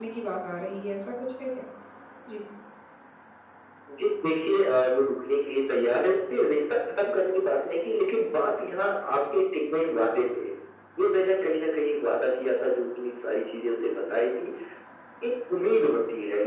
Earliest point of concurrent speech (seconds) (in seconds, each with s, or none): none